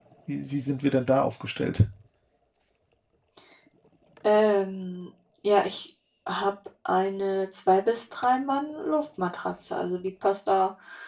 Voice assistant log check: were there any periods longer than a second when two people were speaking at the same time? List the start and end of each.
none

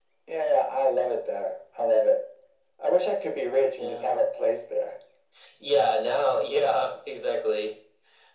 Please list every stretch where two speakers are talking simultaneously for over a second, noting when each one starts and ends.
none

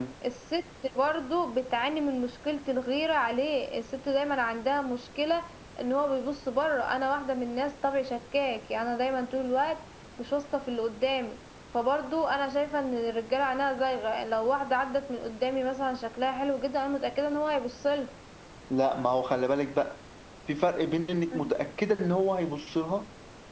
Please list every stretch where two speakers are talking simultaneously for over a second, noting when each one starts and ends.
none

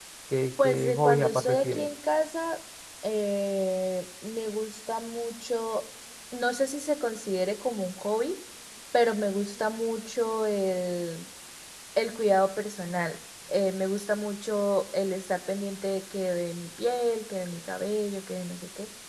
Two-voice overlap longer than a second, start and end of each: 0.6-1.9

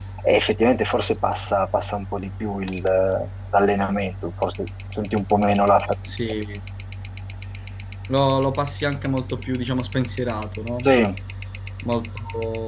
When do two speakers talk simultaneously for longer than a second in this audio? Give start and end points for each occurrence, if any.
none

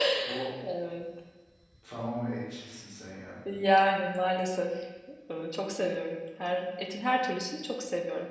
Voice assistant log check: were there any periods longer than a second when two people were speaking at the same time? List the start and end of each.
none

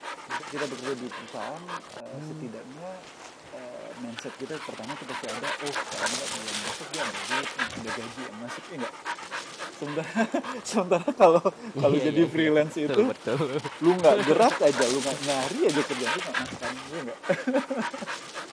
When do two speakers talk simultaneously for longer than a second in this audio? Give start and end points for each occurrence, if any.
11.8-13.1

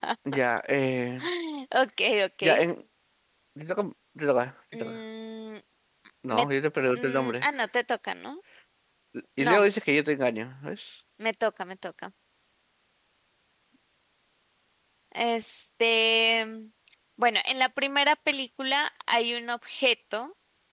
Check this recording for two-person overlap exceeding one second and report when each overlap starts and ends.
none

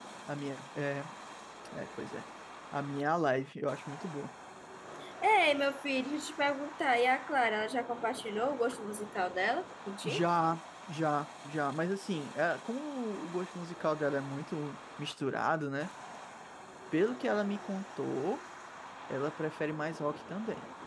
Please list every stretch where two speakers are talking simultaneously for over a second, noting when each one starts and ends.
none

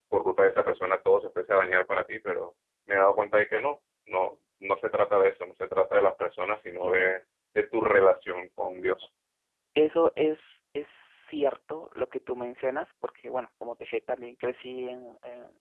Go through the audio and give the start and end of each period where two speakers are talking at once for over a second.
none

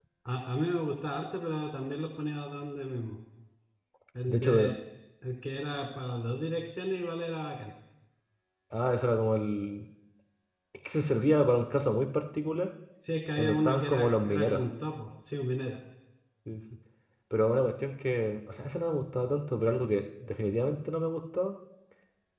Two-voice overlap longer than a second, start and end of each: 13.4-14.6

